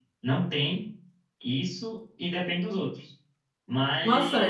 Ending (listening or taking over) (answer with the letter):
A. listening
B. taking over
B